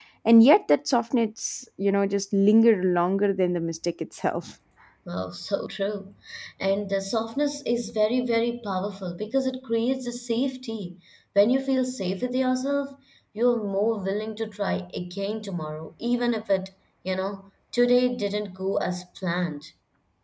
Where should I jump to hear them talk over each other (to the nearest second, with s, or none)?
none